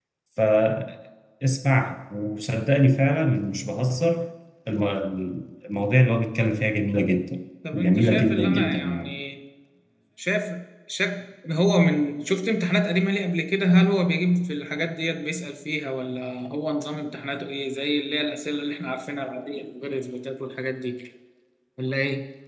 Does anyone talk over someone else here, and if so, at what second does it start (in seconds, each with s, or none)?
7.6 s